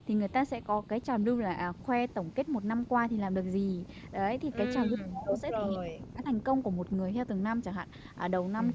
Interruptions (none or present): present